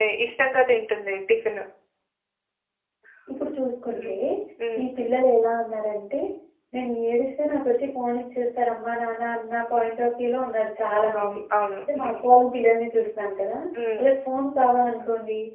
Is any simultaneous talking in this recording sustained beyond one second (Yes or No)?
No